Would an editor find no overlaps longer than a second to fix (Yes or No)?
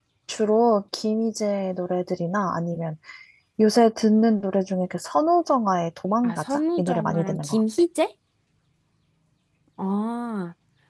No